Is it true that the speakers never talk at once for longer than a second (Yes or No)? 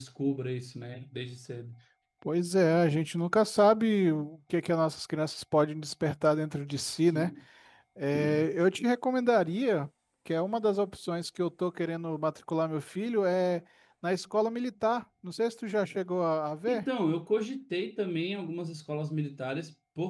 Yes